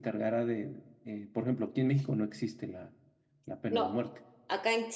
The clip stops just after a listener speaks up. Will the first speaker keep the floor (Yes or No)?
No